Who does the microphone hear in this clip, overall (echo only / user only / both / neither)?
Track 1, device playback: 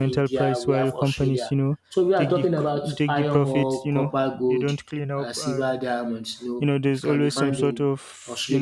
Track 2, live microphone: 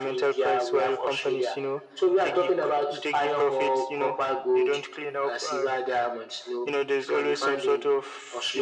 echo only